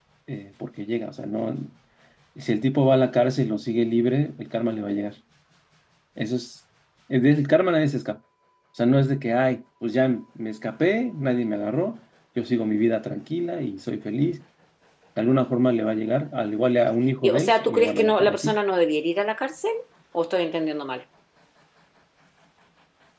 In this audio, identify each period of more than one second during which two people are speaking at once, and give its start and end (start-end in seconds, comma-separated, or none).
17.2-18.6